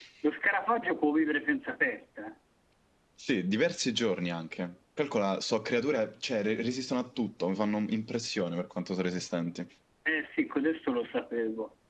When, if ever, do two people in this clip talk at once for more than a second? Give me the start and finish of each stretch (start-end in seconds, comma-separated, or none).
none